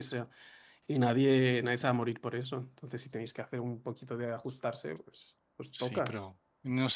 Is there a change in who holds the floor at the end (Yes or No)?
Yes